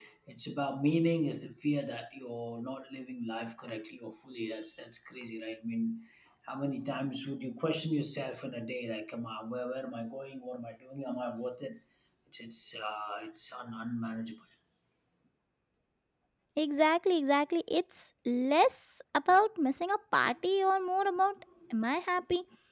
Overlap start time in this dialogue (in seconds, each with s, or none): none